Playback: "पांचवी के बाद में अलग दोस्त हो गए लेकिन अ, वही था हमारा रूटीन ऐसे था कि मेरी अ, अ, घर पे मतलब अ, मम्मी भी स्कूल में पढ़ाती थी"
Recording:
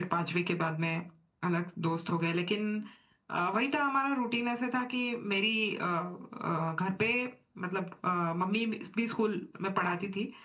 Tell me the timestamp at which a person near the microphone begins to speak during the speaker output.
none

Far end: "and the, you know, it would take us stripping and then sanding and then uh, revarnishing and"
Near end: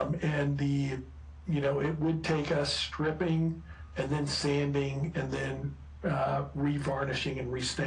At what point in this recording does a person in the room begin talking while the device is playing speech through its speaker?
none

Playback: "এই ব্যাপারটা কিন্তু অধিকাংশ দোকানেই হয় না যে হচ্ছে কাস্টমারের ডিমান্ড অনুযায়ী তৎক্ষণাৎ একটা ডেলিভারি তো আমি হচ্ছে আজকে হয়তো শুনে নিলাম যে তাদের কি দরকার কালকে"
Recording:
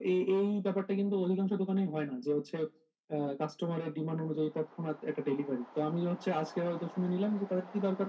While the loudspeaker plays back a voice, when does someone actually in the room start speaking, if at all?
none

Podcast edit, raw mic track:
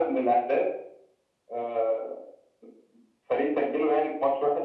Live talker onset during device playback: none

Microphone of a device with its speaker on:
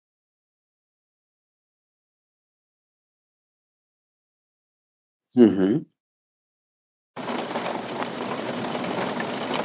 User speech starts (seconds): 5 s

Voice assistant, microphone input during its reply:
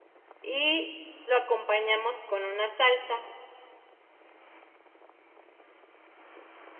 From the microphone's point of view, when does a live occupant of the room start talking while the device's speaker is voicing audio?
0 s

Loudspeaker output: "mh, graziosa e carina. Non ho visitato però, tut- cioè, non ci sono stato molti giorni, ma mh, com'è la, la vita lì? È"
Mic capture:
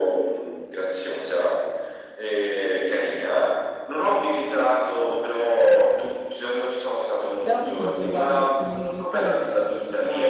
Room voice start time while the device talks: 7 s

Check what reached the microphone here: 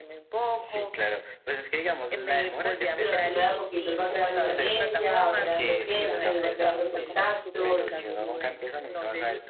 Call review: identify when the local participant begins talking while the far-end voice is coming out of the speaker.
3 s

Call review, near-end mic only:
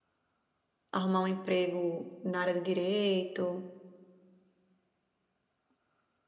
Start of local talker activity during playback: 1 s

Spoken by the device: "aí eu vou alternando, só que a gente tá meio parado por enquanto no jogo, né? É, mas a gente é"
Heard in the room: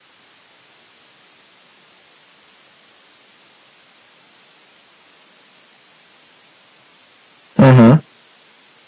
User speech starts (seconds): 8 s

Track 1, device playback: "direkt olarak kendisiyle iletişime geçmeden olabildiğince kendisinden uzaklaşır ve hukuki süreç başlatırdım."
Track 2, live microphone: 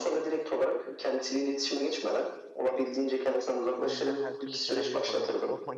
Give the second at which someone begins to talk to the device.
4 s

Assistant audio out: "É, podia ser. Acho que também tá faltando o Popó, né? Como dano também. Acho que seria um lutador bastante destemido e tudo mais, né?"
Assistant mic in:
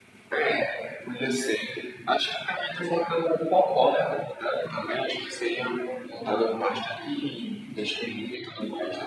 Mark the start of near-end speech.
none

